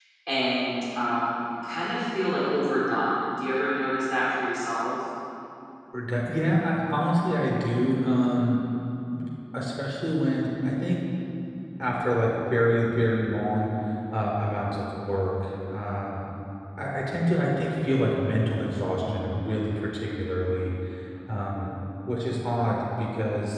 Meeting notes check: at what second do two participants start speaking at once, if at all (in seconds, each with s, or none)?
none